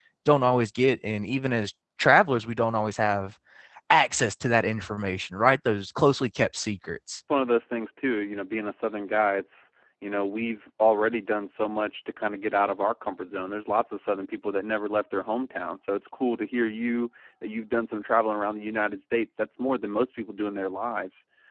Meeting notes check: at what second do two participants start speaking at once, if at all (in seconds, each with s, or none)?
none